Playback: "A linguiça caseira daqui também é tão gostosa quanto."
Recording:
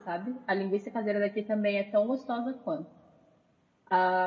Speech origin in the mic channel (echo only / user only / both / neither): echo only